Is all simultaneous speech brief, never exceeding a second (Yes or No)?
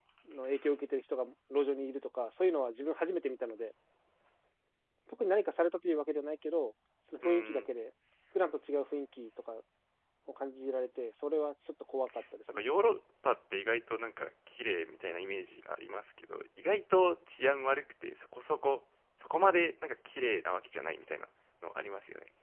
Yes